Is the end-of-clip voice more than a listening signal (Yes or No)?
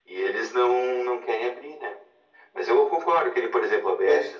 No